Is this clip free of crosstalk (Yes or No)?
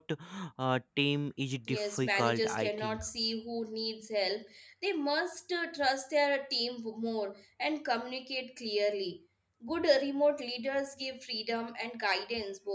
No